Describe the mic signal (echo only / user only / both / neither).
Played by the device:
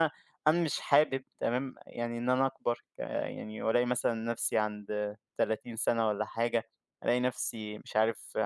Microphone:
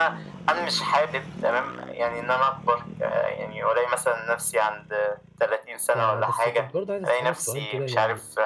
both